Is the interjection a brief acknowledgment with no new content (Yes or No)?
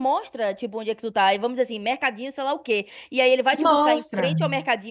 Yes